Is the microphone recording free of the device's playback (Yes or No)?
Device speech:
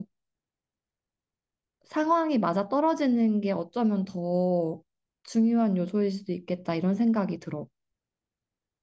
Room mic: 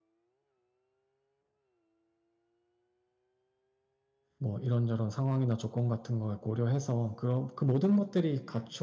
Yes